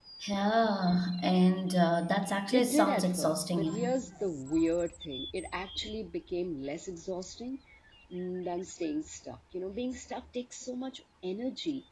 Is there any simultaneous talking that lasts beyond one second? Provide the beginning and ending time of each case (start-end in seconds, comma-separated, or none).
2.5-4.0